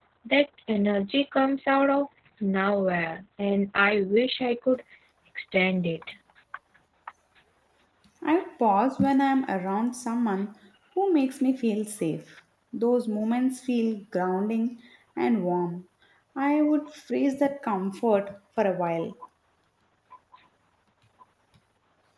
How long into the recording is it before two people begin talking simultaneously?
none

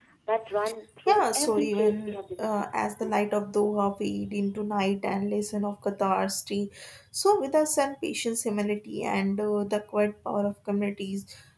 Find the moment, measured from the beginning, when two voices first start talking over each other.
1.1 s

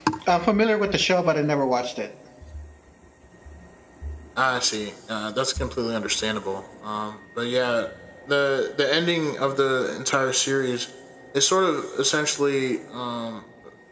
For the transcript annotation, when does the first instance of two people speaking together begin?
none

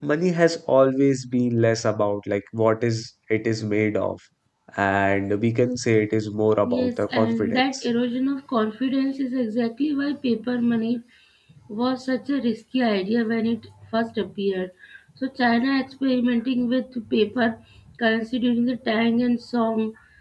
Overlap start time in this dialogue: 6.6 s

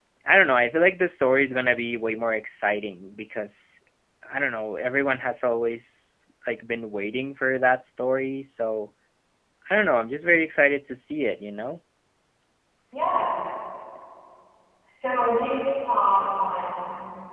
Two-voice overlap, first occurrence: none

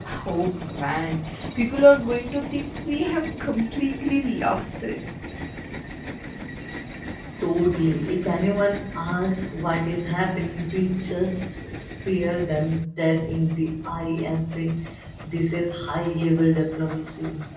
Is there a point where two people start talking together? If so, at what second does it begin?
none

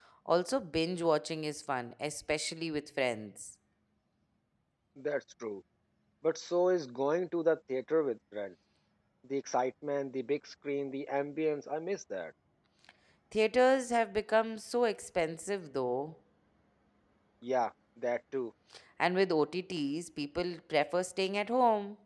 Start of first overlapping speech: none

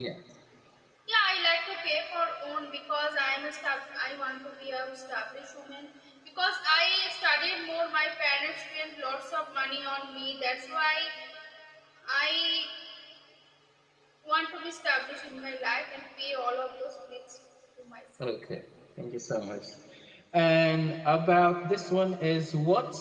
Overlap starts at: none

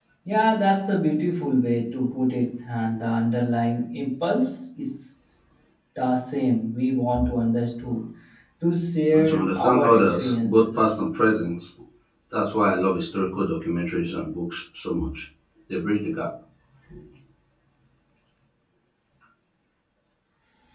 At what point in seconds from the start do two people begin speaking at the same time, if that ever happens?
9.1 s

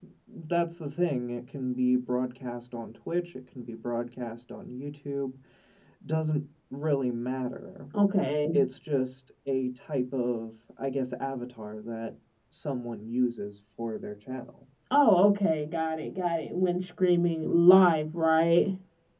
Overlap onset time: none

